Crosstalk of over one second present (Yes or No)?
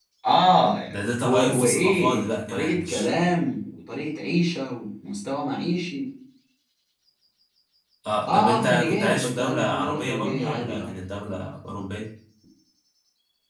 Yes